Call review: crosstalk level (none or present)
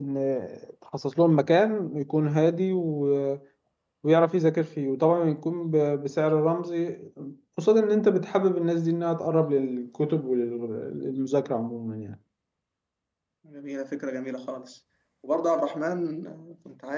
none